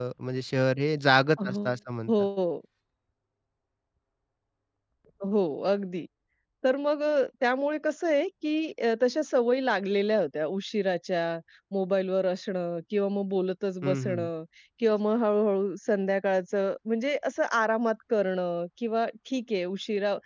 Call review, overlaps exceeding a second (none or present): none